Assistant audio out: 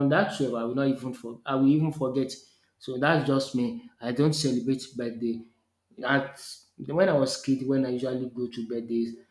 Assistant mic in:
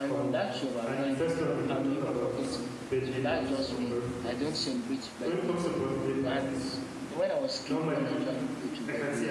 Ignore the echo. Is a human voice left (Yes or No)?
Yes